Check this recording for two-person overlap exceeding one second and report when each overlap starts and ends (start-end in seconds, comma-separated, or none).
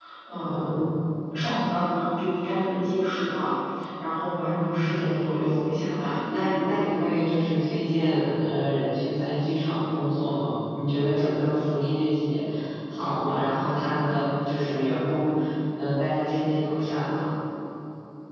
4.2-5.6